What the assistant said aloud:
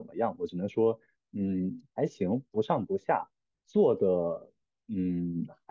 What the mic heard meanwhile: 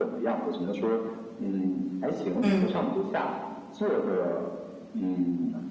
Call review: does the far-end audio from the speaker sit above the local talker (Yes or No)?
No